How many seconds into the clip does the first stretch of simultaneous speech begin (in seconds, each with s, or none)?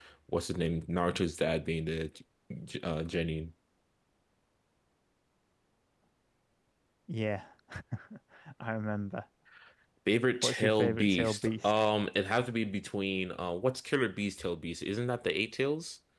10.4 s